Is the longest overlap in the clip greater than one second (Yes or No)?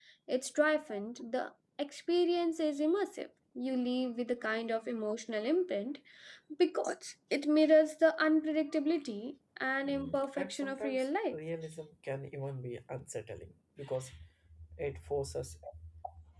Yes